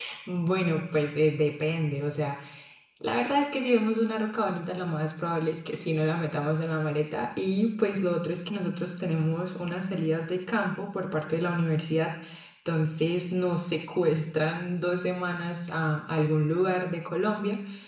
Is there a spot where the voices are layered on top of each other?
No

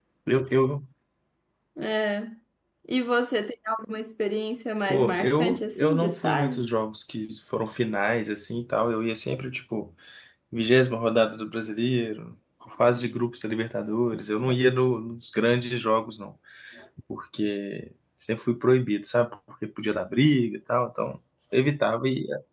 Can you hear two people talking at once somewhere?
Yes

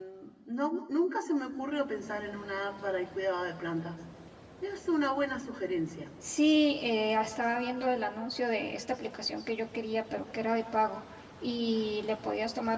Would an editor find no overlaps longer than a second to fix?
Yes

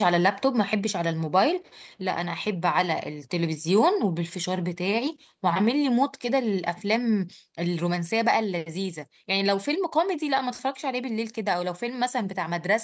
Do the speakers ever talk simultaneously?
No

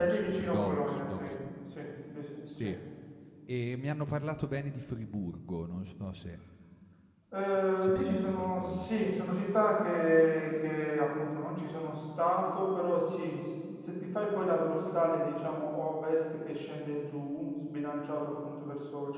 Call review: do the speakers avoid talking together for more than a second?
No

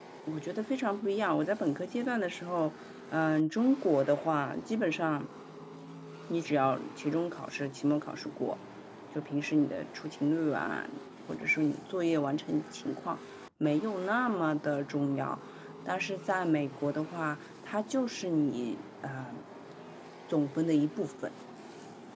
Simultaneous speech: No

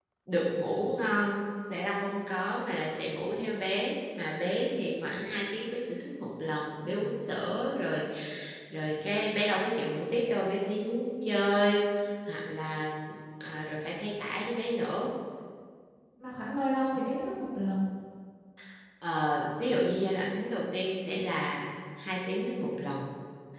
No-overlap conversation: Yes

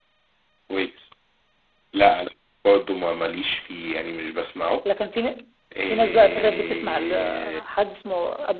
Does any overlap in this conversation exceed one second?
Yes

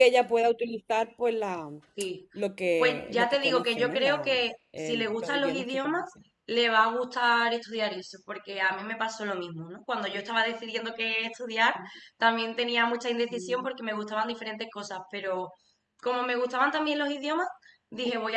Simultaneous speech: Yes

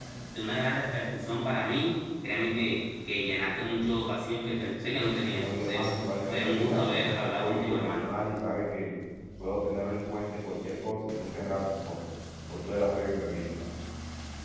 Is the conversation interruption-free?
No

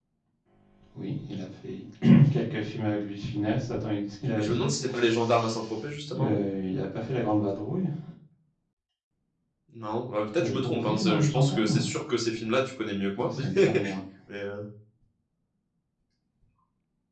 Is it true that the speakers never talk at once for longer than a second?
No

